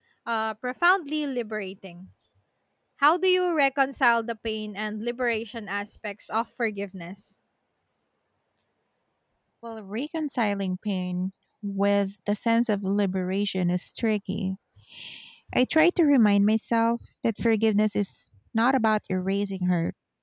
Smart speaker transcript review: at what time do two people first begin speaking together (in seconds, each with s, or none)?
none